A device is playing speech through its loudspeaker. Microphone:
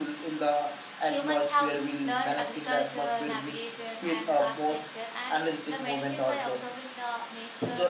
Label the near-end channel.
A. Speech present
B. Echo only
A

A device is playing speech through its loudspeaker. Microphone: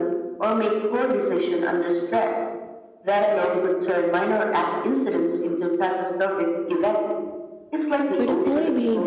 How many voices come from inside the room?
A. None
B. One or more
B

